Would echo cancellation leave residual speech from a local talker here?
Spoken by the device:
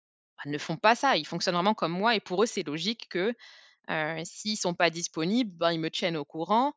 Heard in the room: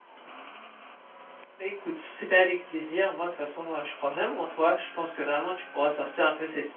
Yes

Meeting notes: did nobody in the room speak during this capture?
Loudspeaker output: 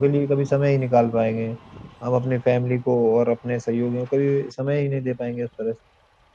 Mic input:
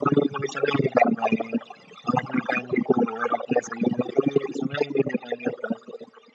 Yes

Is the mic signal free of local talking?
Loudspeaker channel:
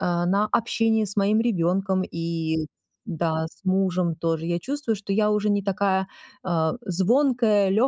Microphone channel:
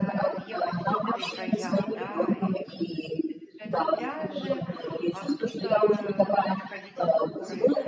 No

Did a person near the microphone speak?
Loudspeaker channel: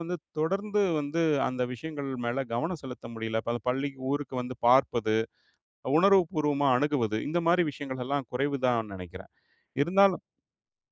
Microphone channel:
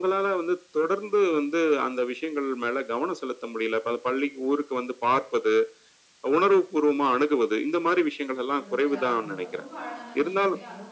Yes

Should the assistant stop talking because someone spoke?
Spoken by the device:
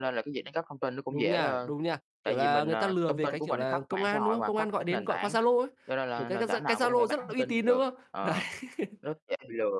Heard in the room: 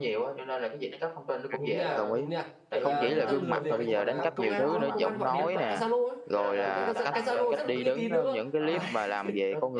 Yes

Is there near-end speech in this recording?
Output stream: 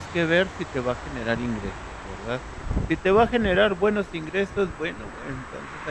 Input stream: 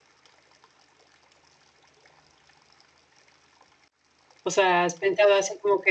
Yes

